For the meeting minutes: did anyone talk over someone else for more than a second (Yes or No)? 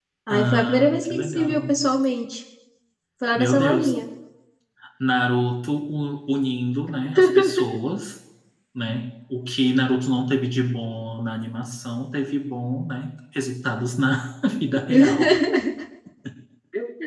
Yes